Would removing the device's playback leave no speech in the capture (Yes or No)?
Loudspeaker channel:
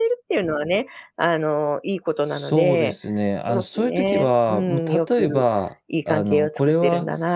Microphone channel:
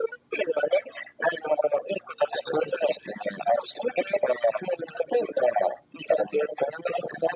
Yes